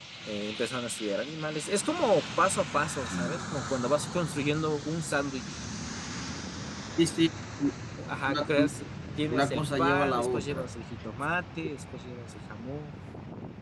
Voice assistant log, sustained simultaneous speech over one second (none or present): present